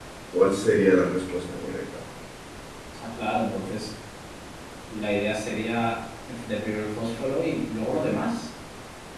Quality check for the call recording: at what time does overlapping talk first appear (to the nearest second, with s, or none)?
none